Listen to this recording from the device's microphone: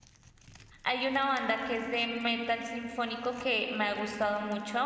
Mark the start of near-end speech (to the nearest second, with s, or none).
1 s